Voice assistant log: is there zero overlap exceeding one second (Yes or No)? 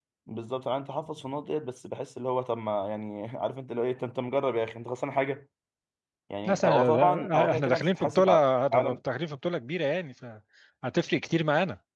No